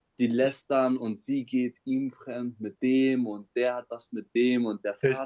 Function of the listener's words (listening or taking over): listening